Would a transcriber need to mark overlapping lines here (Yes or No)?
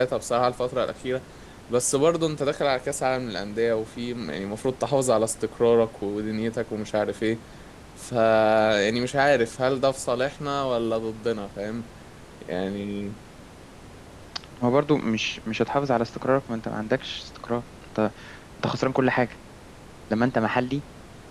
No